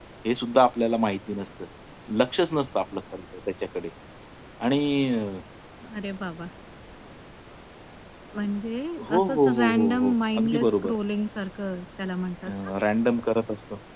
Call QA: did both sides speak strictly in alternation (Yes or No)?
No